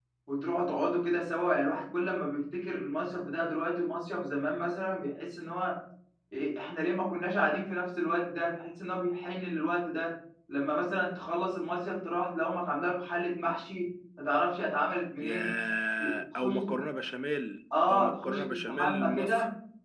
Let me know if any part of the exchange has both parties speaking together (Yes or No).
Yes